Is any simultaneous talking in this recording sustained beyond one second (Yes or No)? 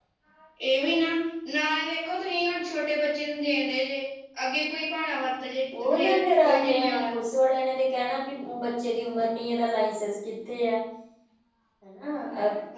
Yes